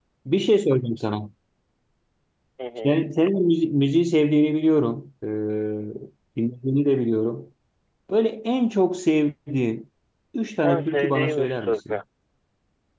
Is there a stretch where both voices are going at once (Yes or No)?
Yes